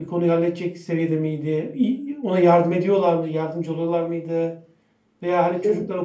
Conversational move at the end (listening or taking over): listening